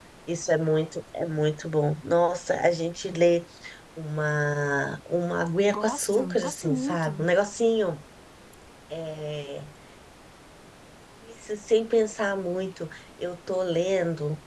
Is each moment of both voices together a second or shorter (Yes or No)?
No